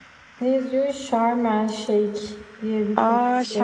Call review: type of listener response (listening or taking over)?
taking over